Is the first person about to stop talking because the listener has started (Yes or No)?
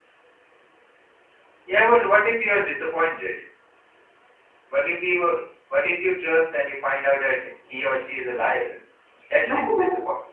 Yes